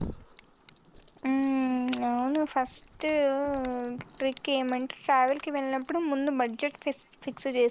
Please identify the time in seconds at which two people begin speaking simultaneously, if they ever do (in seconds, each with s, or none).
none